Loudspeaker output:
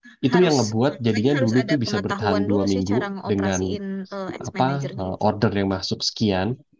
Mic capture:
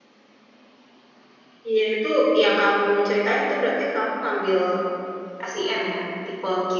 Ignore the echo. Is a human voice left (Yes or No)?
Yes